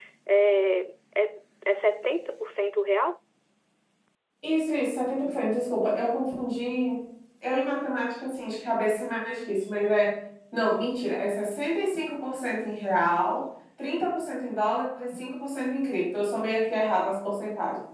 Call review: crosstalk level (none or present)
none